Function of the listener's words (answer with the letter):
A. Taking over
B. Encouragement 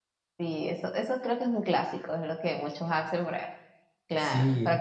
B